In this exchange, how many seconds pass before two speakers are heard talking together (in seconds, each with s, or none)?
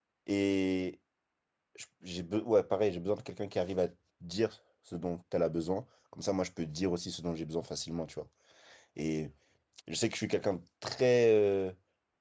none